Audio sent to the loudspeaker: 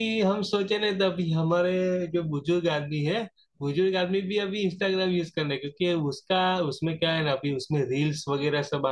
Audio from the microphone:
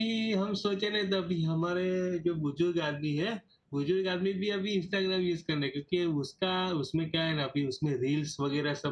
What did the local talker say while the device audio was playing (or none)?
none